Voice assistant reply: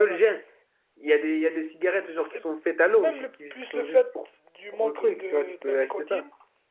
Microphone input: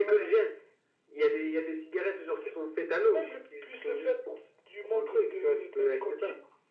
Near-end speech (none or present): none